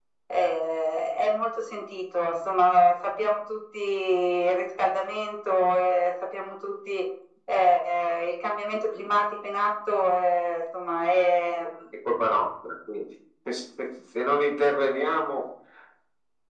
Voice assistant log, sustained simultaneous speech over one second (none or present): none